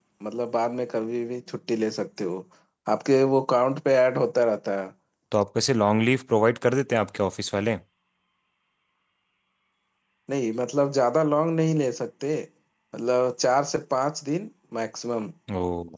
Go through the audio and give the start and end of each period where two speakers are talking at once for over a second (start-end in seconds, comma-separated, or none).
none